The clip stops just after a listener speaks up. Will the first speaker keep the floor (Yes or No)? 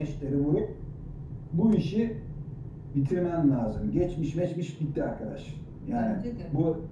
Yes